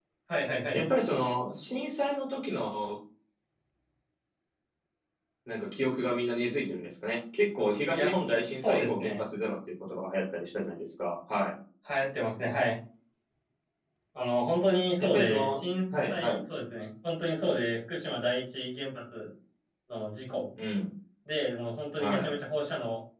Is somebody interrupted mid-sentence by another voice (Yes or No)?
Yes